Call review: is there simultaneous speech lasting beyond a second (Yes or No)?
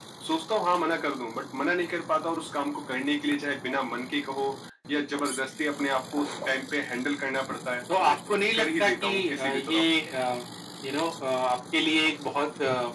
Yes